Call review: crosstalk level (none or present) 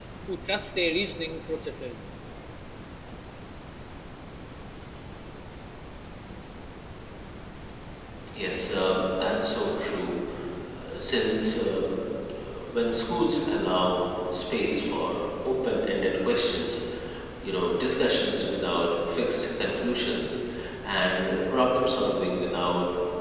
none